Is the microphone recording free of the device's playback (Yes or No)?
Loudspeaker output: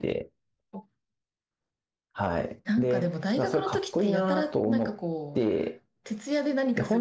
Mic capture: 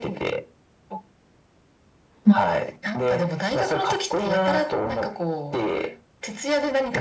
No